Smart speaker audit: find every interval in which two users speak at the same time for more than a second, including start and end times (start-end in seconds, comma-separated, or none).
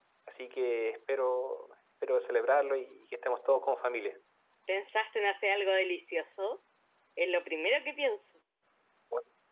none